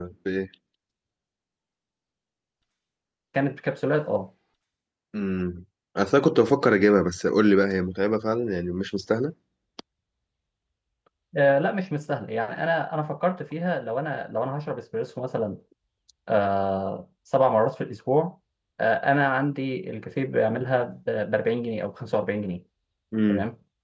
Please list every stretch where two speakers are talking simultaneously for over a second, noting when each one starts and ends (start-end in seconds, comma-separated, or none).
none